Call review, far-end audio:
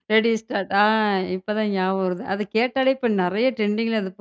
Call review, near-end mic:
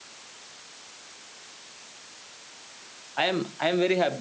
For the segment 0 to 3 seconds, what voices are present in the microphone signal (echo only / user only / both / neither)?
neither